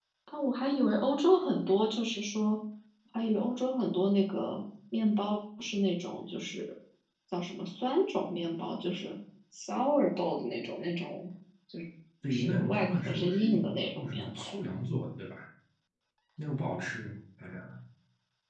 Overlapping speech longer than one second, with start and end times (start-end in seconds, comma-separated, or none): 12.3-14.7